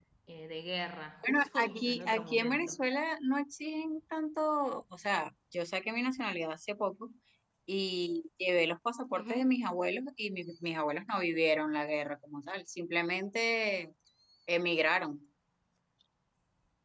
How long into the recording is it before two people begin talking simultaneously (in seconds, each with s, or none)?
1.2 s